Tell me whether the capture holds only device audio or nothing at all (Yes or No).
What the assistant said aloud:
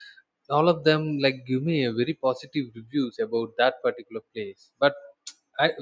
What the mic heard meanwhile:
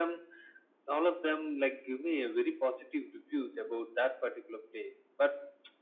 Yes